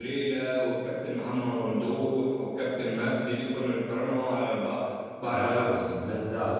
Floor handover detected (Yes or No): Yes